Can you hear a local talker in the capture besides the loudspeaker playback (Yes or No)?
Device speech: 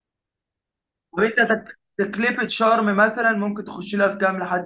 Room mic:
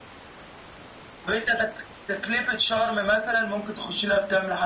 No